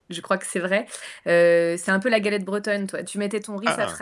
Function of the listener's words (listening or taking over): listening